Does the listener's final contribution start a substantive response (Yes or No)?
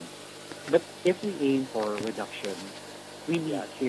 No